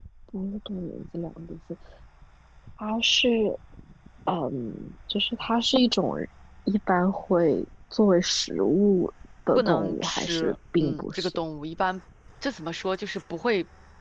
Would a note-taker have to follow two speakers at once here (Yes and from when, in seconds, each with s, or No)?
Yes, from 9.6 s